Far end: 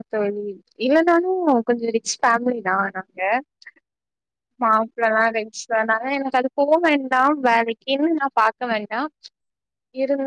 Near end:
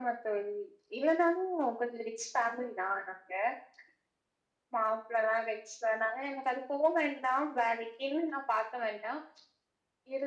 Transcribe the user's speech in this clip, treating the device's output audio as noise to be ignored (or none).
none